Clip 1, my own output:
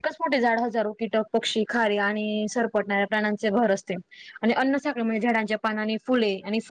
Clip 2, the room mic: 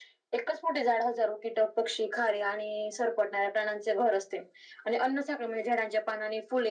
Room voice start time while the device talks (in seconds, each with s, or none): none